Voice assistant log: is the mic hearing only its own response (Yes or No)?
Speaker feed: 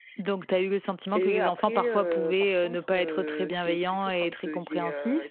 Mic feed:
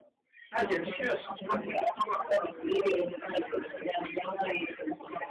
No